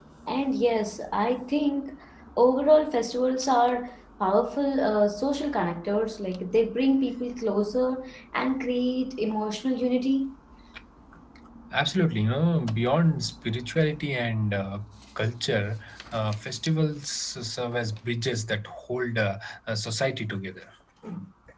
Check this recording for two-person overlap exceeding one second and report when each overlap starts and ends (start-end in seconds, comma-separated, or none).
none